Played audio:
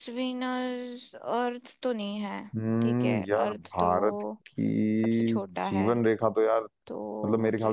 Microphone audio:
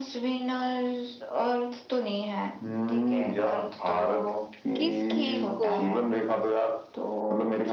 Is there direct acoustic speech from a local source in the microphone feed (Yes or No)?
Yes